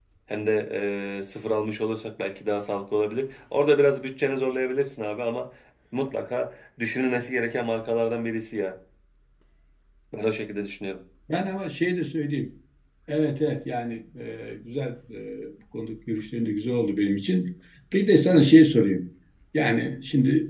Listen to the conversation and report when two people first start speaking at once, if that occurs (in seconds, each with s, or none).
none